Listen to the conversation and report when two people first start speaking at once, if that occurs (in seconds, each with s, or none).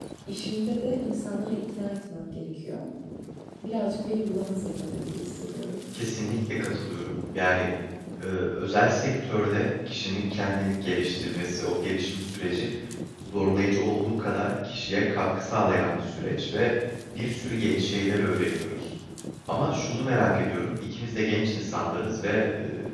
none